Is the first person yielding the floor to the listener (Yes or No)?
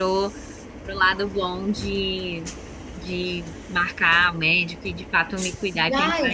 Yes